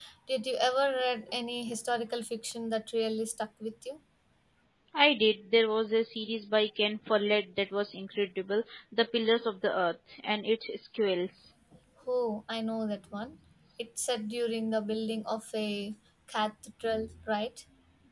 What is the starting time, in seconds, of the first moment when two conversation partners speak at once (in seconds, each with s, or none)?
none